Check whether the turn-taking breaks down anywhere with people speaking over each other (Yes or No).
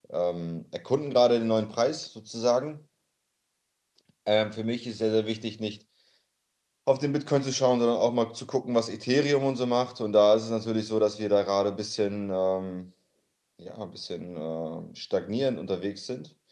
No